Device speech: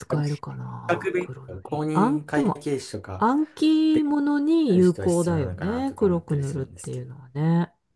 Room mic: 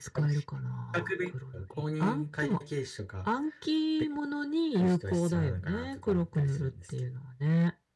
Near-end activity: none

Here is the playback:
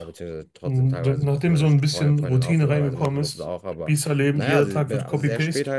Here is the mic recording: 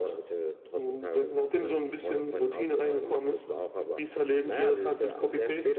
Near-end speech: none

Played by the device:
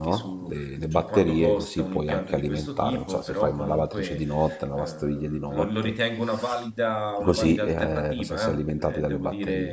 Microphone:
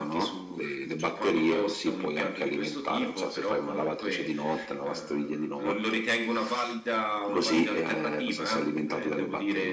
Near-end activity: none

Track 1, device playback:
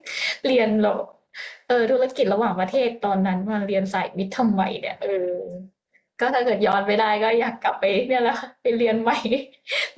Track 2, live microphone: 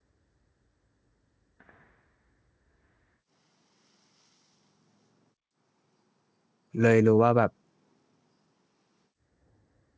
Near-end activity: present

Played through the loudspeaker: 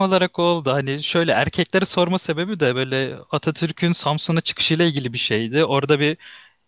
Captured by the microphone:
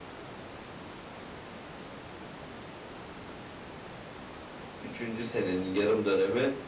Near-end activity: present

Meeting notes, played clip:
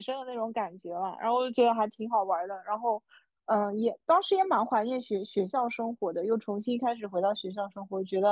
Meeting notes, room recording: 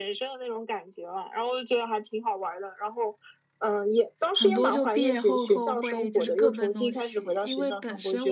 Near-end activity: present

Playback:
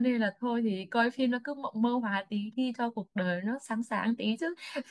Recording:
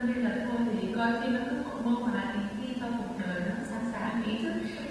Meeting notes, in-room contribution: none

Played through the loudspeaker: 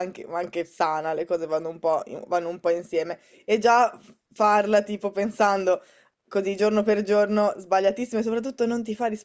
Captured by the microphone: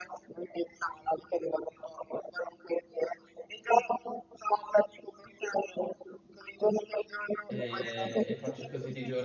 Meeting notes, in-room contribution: present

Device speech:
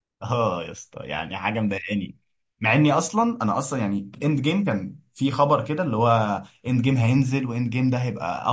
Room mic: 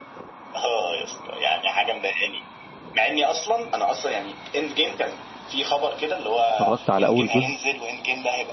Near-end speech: present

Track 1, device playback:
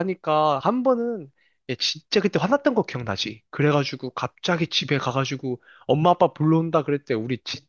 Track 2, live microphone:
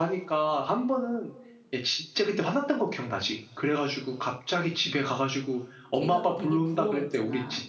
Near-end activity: present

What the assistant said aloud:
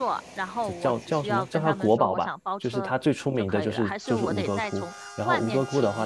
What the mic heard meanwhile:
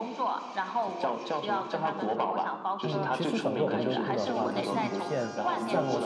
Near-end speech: present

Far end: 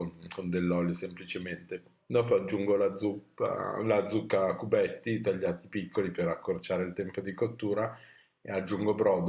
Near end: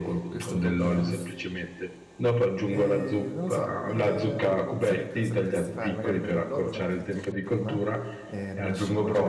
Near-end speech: present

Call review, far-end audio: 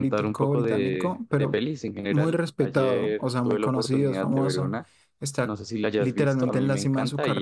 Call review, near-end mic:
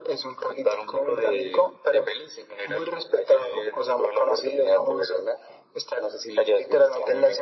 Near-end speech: none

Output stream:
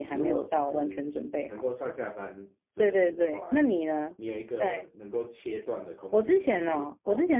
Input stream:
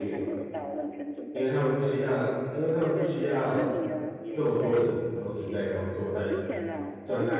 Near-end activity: present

